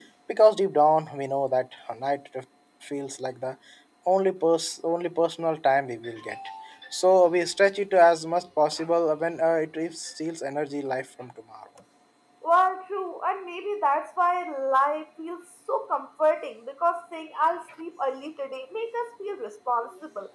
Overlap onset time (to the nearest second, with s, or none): none